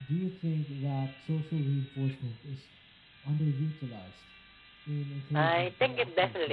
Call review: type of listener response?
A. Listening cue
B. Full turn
B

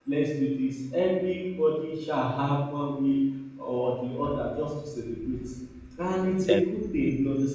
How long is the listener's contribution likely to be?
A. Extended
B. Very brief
B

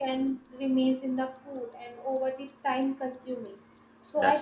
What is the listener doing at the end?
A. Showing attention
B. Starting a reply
A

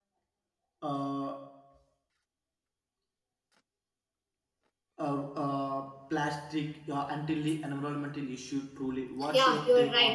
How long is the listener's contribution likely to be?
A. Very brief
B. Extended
B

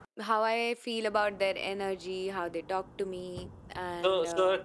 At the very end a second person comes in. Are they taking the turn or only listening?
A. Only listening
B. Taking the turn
B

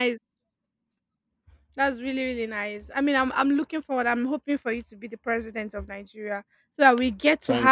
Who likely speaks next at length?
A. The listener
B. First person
B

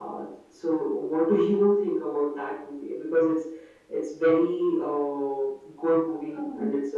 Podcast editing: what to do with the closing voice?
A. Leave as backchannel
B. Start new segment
B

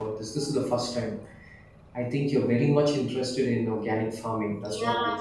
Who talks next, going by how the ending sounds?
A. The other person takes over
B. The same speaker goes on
A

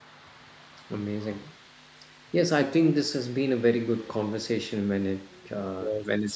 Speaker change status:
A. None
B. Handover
B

